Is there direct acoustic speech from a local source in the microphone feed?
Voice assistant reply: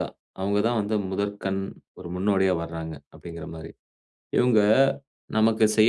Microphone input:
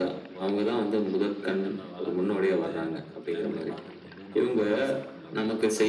Yes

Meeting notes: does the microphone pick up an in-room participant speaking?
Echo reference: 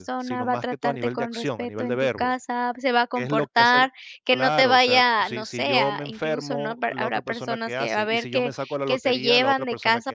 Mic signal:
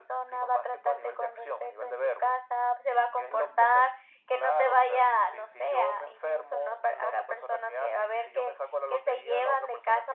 No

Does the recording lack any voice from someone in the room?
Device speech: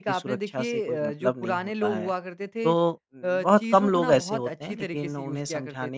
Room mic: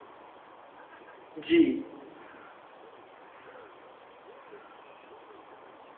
No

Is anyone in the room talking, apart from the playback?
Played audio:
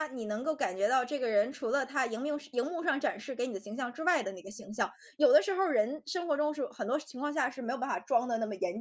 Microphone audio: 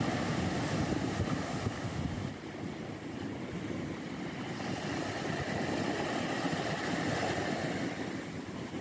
No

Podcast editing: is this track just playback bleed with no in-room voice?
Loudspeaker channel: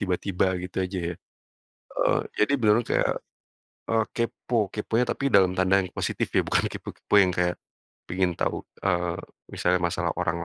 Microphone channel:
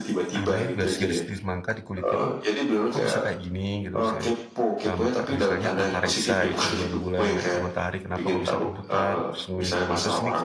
No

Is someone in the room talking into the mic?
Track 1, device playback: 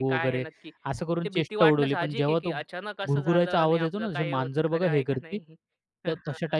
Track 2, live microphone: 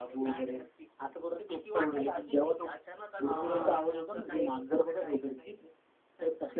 Yes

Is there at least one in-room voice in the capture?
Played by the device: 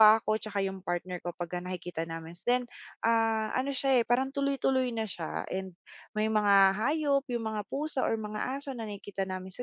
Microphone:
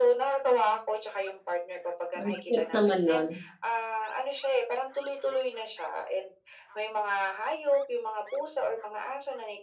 Yes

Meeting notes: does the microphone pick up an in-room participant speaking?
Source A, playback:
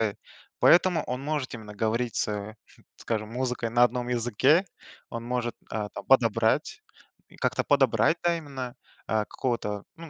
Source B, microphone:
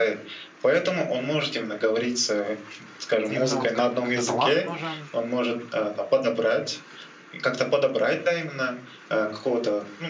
Yes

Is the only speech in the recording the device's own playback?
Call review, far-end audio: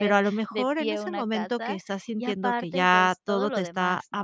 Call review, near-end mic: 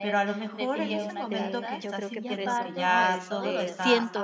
No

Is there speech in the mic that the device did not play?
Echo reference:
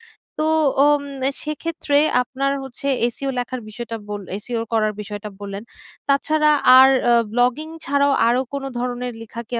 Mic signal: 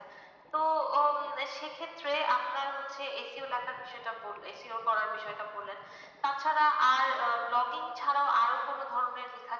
No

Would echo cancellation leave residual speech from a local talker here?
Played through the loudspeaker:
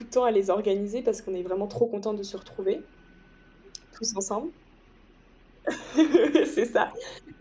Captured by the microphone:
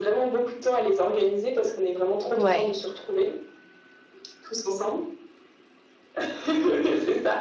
Yes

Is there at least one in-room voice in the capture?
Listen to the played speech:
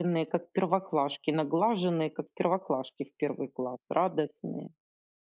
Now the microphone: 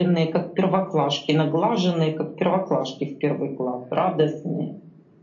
No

